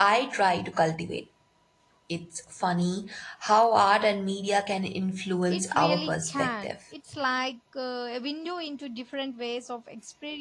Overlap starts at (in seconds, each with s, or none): 5.5 s